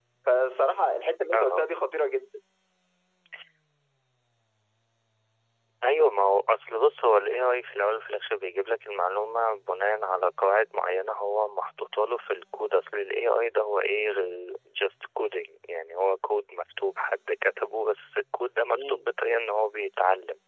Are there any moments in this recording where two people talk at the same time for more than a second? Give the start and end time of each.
none

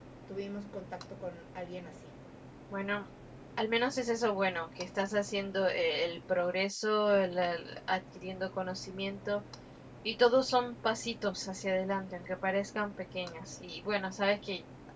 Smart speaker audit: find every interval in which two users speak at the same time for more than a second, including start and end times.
none

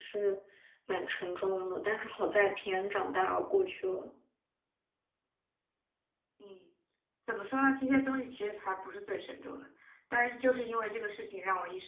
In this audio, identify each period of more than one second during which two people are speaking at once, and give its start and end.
none

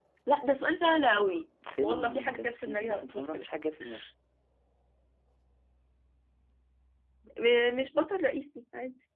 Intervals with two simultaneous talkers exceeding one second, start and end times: 1.8-3.5

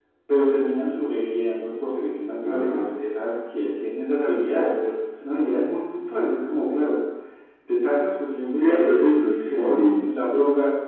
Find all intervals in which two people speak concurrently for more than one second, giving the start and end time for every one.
8.6-10.0

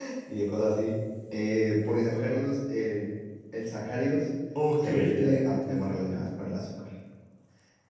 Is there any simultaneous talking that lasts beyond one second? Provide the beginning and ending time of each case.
4.8-6.3

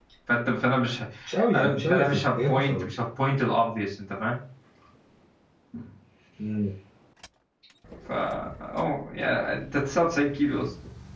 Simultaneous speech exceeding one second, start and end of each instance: 1.5-2.9

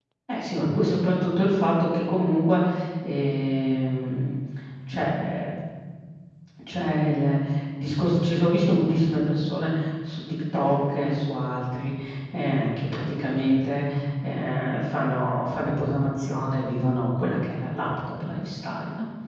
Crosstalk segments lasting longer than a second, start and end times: none

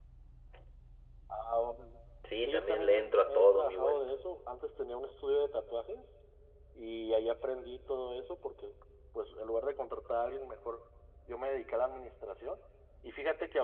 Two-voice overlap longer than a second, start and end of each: 2.4-4.0

